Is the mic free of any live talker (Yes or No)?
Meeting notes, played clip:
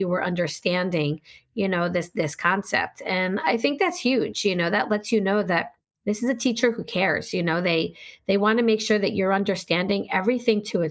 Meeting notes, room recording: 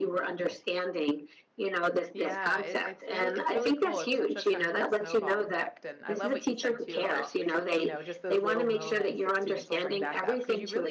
No